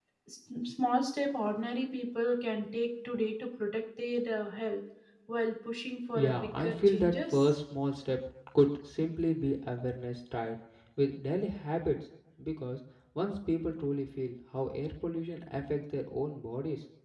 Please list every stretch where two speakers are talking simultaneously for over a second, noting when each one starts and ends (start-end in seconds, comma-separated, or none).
6.1-7.4